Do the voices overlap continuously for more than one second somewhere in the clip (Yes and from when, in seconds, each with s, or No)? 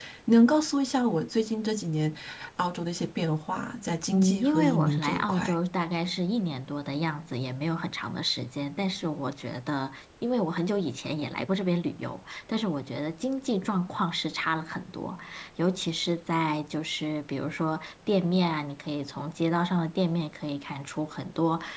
Yes, from 4.1 s